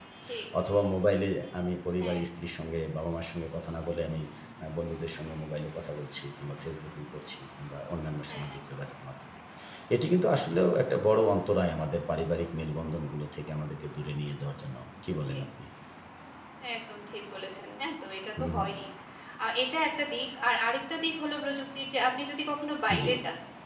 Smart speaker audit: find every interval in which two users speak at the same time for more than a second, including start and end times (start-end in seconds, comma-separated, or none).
none